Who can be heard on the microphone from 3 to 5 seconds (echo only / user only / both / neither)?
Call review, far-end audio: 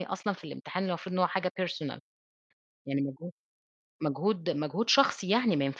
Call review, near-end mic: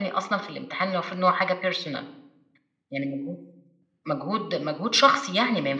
echo only